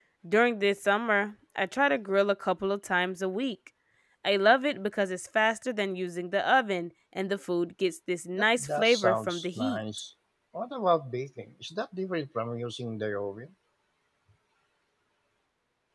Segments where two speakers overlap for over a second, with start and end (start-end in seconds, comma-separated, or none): 8.4-9.8